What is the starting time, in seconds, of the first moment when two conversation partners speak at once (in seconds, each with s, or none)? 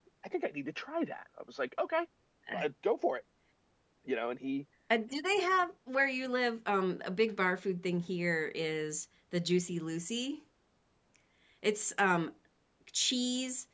none